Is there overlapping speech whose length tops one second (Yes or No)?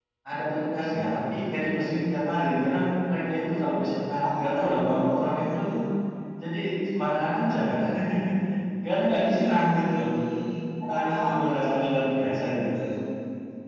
Yes